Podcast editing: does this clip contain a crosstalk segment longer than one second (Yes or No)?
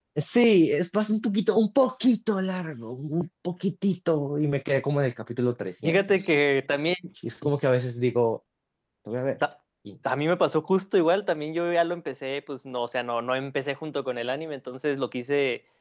No